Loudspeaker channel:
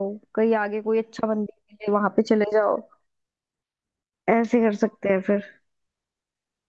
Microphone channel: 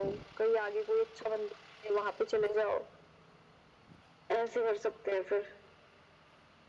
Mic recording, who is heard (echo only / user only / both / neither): echo only